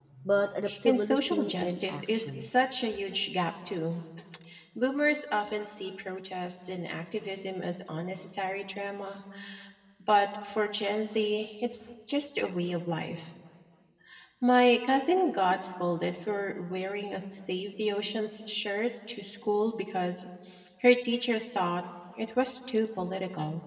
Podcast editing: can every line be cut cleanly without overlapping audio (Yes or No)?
No